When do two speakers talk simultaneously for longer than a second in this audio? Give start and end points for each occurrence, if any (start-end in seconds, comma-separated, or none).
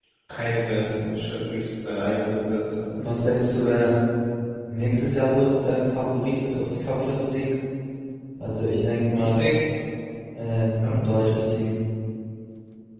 none